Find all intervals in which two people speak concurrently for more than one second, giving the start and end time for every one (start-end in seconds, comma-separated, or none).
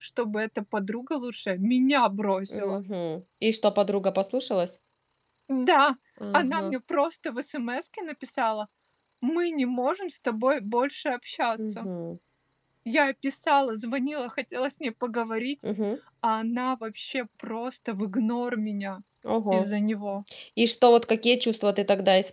none